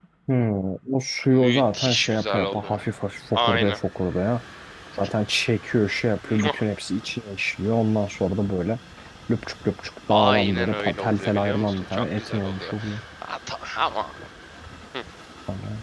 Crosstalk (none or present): present